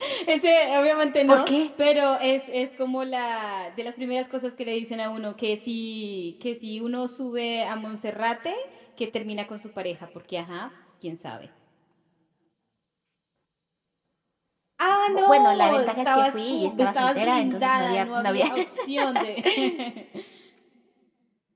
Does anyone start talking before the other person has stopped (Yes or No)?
Yes